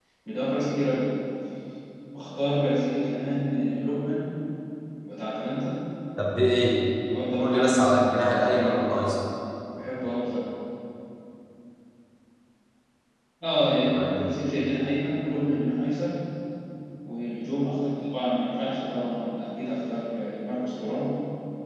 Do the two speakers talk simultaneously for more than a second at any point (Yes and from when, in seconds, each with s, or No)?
Yes, from 7.4 s